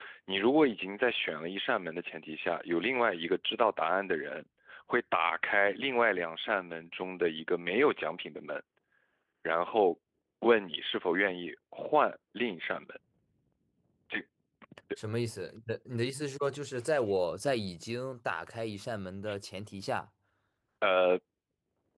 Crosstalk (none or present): none